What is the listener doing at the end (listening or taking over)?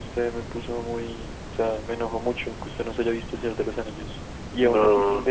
listening